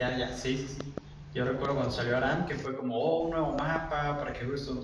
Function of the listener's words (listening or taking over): listening